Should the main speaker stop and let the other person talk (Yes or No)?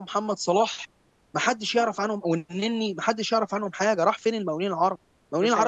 No